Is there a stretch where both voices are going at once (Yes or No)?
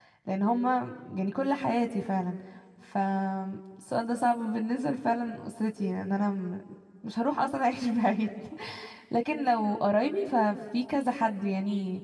No